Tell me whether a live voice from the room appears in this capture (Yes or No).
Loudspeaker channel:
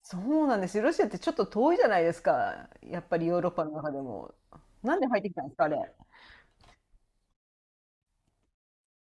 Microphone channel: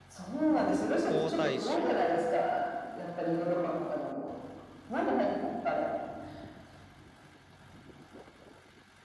Yes